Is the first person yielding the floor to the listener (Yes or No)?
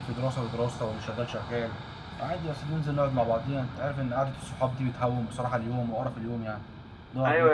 Yes